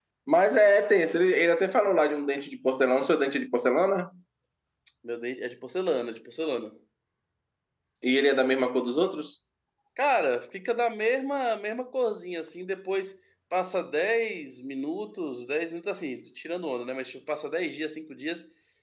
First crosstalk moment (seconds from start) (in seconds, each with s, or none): none